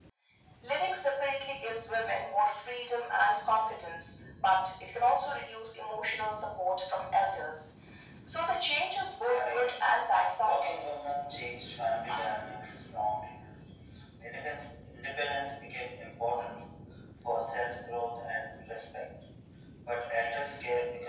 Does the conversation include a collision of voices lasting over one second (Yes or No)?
Yes